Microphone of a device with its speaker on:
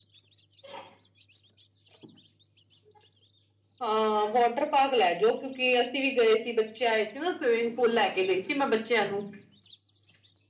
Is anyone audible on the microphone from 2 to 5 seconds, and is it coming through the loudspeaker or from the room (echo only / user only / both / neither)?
user only